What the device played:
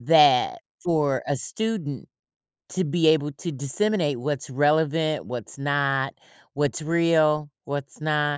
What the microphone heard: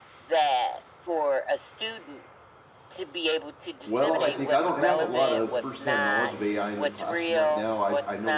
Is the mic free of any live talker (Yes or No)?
No